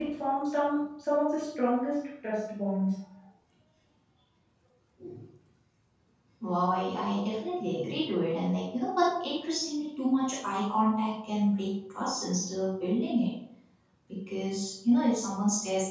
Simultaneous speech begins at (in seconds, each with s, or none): none